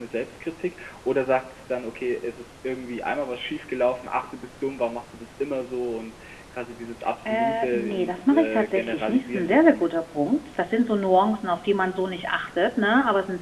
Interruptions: present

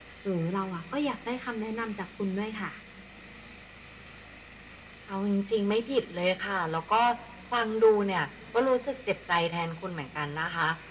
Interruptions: none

